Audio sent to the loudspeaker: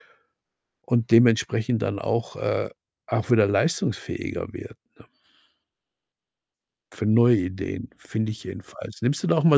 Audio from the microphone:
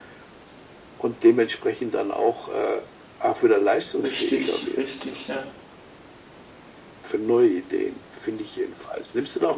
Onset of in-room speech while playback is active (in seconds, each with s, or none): 4.0 s